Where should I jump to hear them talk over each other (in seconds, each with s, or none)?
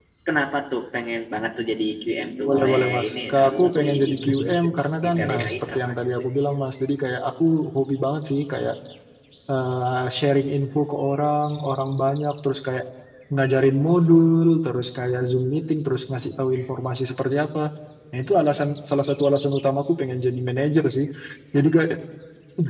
2.5 s